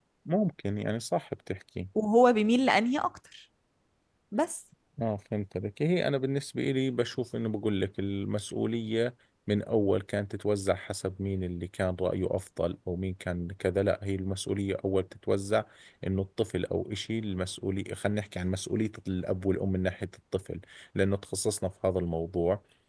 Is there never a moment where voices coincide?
Yes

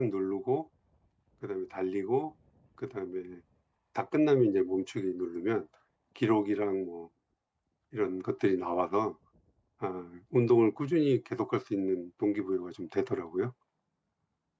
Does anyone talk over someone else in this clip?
No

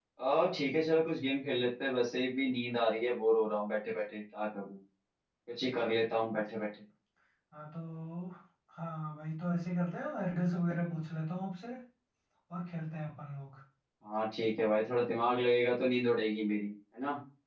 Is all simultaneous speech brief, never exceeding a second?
Yes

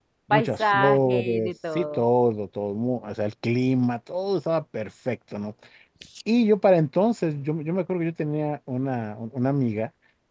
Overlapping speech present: Yes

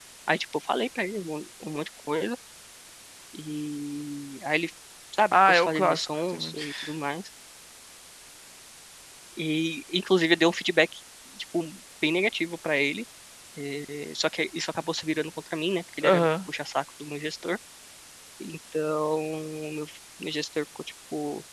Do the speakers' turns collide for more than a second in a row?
Yes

